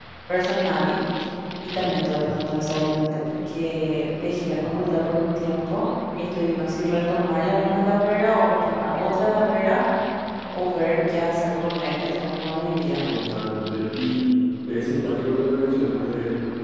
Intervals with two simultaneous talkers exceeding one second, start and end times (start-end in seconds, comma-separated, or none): none